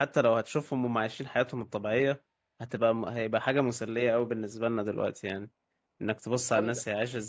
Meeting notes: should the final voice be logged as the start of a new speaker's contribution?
No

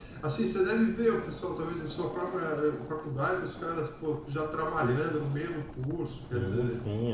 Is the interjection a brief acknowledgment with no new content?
No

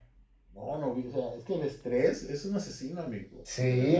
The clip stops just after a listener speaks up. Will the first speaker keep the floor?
No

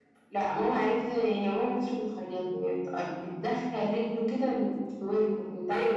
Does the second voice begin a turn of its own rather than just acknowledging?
Yes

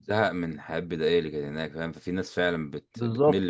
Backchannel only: No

